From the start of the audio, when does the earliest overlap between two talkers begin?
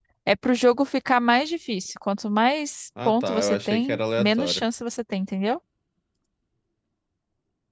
3.0 s

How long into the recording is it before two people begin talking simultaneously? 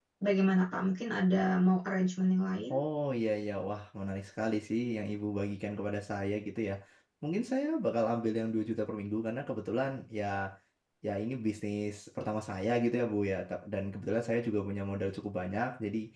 none

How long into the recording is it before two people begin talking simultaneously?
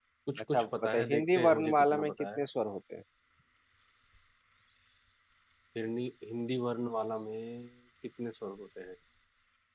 0.5 s

